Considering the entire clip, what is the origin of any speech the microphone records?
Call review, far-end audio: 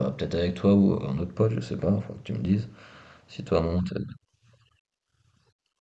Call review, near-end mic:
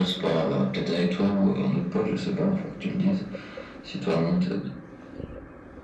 echo only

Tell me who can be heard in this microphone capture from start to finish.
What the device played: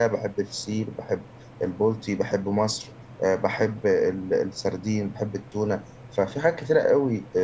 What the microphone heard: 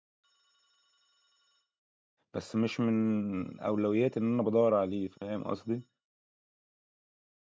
user only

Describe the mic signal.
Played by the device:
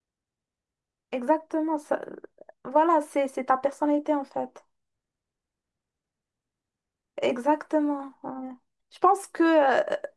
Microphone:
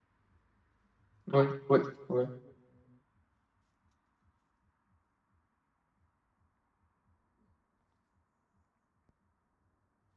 user only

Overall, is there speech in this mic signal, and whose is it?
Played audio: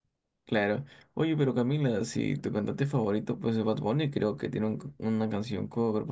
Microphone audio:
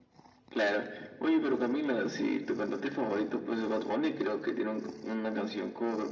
echo only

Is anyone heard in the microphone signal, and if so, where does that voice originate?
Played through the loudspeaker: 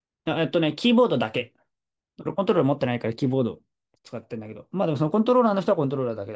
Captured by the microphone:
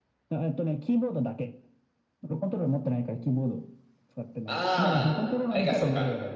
both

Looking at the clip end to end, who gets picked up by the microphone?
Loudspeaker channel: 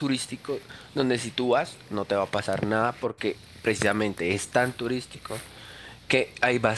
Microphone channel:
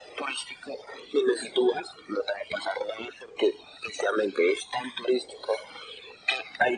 echo only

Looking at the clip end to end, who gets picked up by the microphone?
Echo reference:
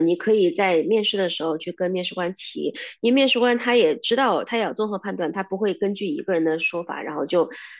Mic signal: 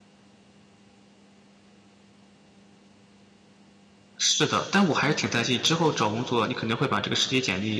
user only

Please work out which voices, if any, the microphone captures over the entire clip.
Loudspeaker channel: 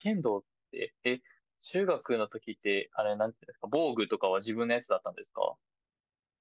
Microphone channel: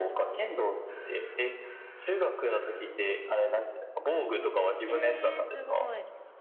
both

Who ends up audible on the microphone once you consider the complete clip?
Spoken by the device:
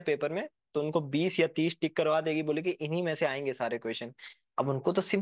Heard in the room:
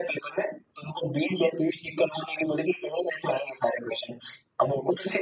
echo only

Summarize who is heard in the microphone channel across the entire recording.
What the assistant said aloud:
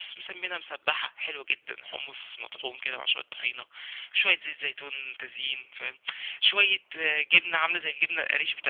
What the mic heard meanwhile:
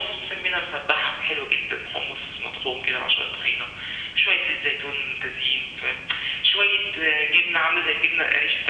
echo only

